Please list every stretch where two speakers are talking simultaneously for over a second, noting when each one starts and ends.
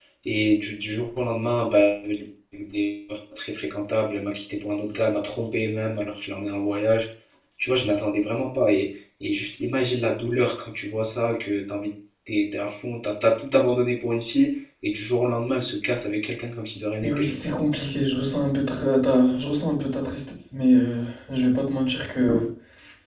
none

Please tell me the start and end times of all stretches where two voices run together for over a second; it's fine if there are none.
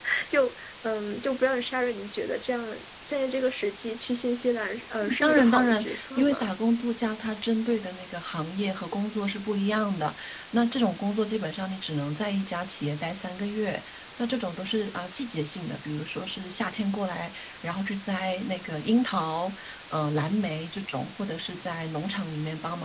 5.2-6.5

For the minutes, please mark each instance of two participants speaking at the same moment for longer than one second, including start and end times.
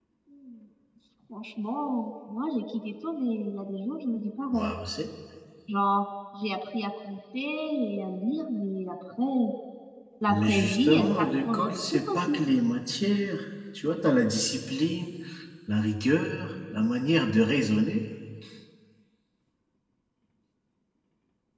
10.3-12.4

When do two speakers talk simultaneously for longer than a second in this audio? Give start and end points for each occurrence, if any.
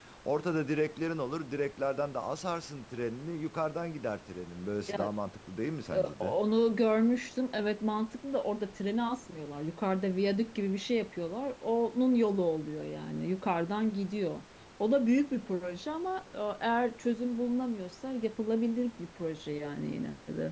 none

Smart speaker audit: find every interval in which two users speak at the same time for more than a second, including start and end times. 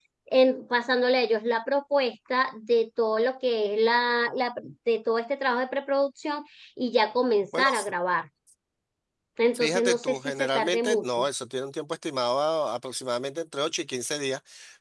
9.5-11.2

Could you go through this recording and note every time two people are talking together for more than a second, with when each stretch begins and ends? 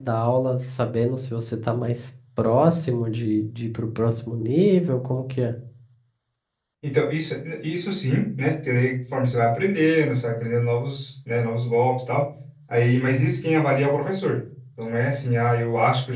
none

